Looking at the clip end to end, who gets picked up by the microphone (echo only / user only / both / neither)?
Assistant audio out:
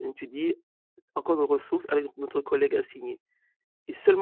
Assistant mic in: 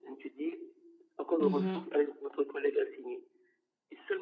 both